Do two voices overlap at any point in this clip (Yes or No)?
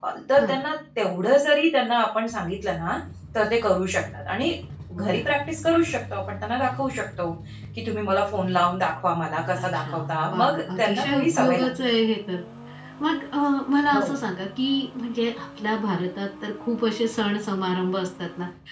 Yes